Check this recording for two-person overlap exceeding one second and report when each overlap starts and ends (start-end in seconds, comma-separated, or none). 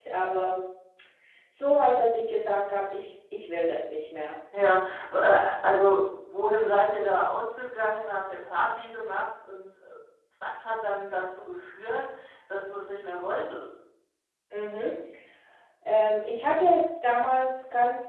none